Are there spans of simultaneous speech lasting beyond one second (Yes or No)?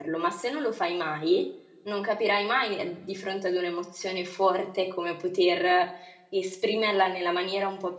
No